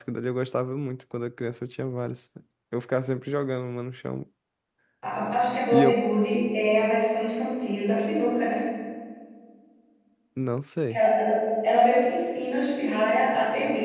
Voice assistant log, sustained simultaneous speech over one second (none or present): none